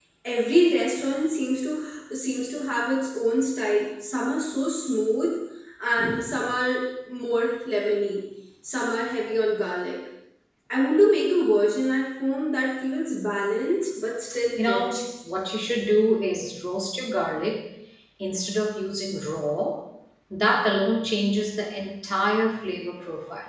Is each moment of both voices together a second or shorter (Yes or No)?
Yes